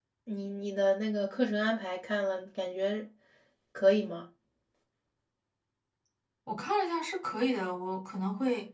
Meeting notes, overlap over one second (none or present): none